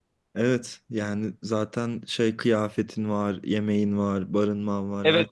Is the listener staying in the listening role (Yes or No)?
No